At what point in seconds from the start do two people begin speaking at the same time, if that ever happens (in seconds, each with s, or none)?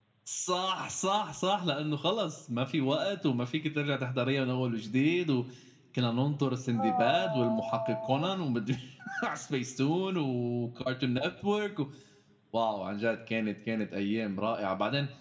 6.7 s